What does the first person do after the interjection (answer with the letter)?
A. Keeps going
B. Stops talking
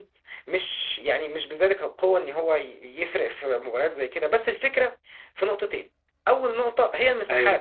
A